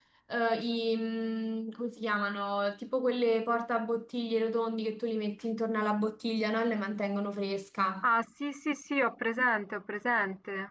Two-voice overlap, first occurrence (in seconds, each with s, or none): none